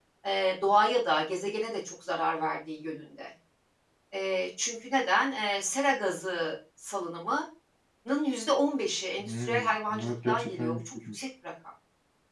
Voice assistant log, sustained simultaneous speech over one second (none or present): present